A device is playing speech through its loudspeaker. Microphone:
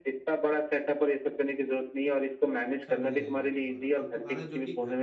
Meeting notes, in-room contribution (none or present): present